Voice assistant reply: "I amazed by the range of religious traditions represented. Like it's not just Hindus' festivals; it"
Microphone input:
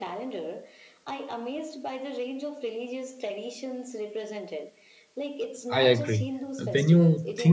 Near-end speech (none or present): present